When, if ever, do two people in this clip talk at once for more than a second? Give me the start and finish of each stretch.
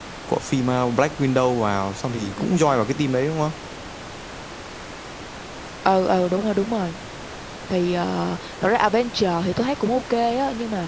none

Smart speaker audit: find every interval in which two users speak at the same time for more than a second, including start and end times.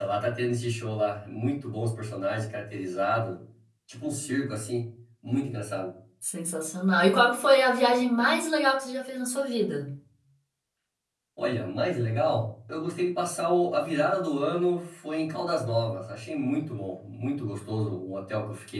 none

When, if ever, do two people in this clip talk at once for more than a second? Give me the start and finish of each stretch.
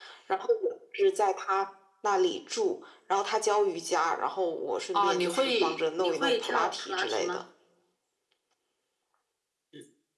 4.9-7.4

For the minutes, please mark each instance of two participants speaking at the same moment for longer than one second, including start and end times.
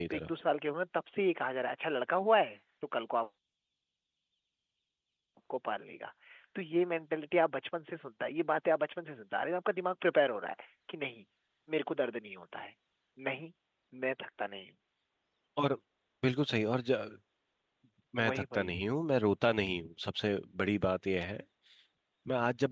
none

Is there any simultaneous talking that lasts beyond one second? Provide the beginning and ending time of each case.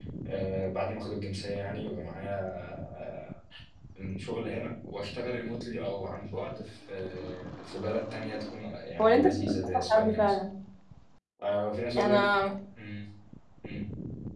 9.0-10.4

